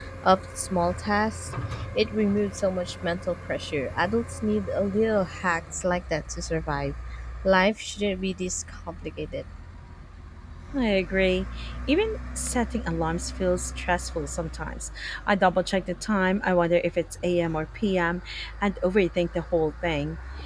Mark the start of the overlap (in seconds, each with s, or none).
none